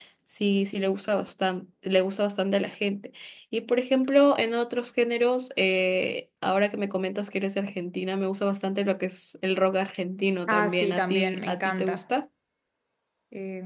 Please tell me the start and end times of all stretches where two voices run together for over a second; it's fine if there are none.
10.5-12.0

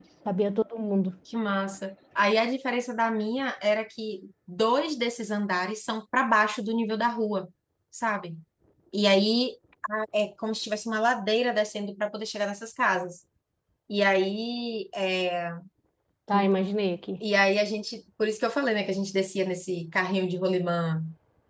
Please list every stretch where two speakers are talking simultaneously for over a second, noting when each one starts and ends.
none

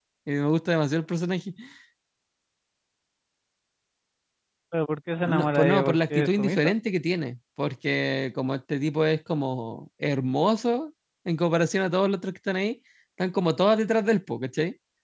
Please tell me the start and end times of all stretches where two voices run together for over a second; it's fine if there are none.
5.2-6.7

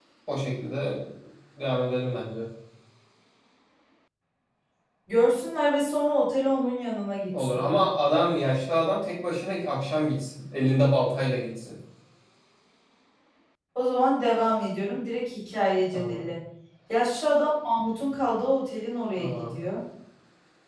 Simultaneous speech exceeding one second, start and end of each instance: none

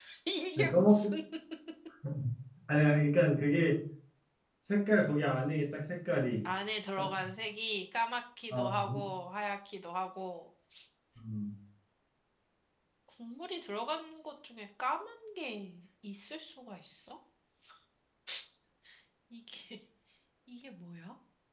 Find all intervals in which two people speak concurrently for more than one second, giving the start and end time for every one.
none

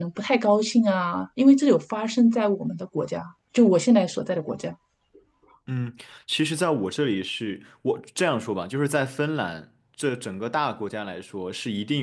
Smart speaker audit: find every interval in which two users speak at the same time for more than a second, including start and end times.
none

